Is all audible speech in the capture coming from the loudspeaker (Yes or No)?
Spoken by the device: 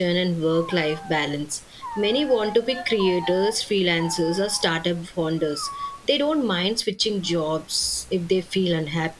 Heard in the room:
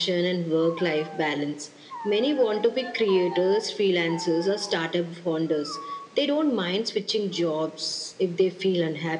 Yes